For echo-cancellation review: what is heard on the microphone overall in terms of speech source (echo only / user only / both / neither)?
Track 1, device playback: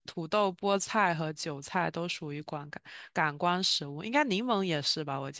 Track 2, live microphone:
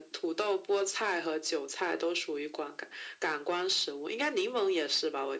echo only